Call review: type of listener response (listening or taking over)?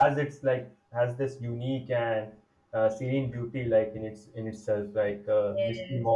taking over